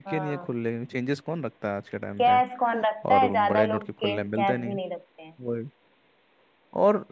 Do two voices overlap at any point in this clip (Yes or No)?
Yes